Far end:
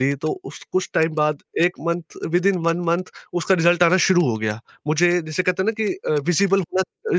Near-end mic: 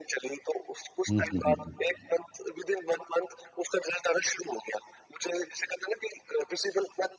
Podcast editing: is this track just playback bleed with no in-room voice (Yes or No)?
No